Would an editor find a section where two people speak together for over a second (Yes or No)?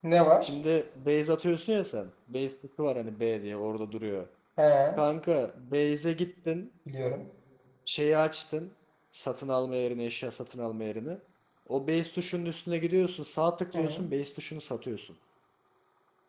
No